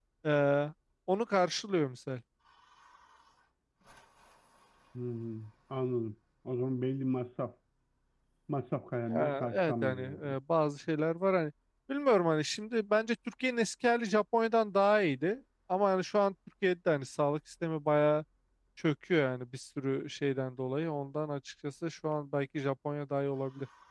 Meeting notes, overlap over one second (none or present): present